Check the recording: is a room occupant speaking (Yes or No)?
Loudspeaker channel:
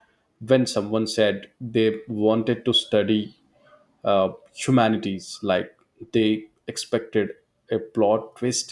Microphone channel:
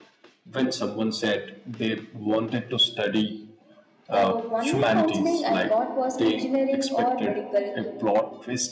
Yes